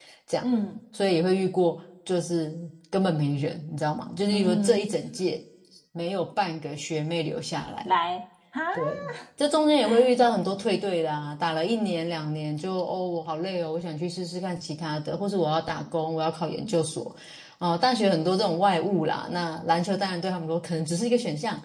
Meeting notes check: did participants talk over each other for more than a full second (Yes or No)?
No